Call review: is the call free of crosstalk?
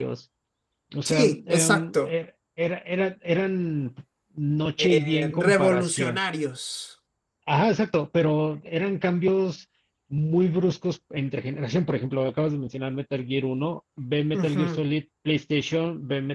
No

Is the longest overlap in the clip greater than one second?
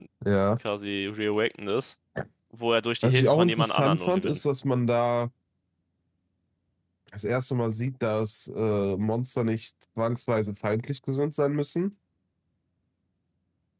Yes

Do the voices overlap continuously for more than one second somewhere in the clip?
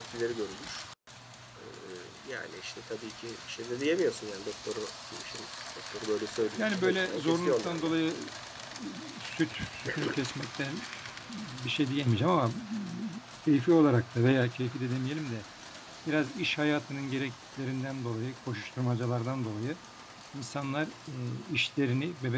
Yes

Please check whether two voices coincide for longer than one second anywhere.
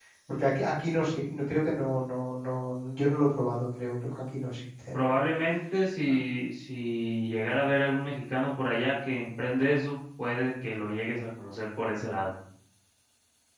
No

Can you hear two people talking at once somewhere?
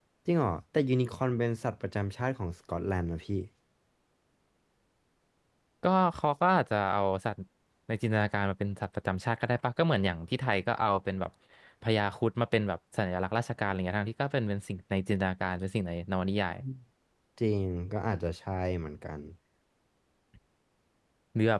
No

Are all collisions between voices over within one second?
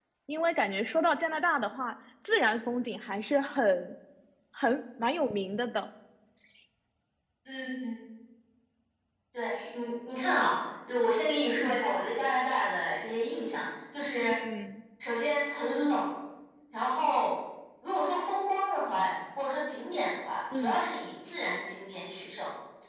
Yes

